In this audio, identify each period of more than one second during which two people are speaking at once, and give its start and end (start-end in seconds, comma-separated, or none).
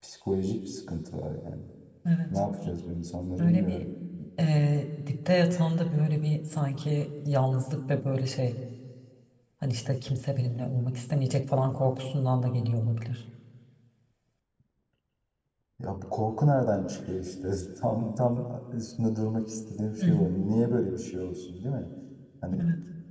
none